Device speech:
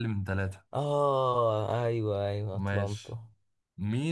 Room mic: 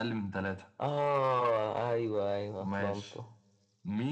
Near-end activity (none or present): none